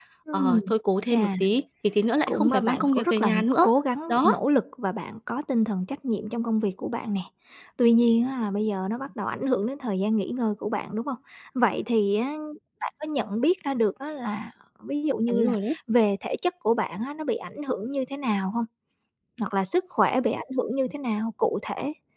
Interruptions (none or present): present